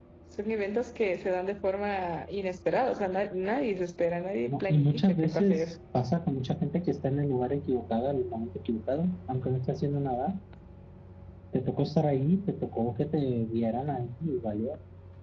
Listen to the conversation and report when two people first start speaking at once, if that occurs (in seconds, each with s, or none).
4.5 s